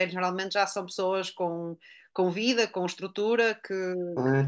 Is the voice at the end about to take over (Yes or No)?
Yes